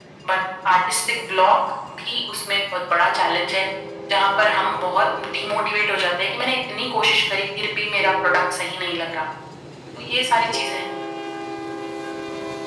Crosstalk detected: No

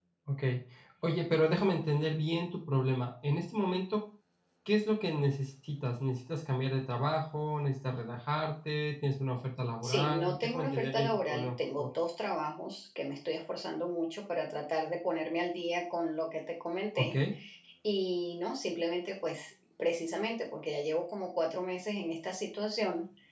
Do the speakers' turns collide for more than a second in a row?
Yes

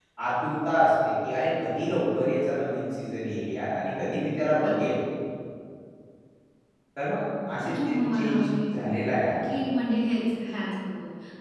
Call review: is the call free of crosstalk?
No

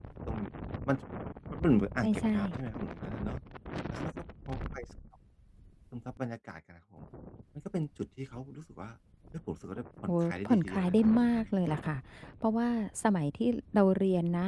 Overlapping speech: Yes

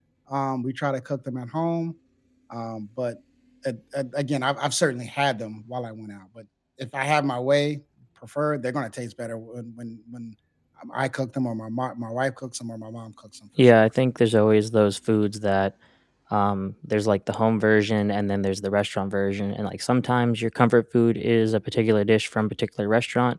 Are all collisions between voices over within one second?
Yes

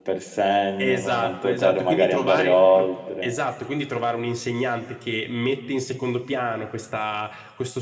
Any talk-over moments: Yes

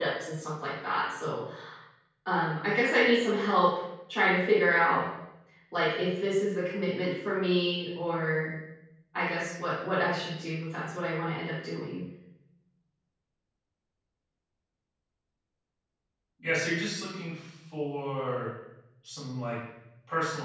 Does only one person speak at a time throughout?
Yes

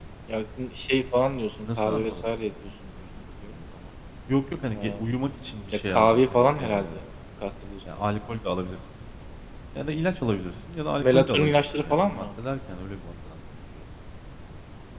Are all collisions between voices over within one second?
No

